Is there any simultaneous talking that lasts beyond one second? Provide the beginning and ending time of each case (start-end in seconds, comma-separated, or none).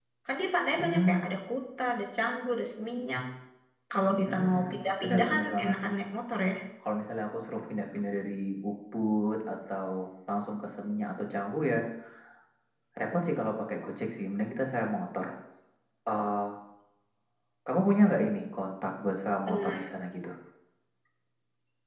4.3-5.7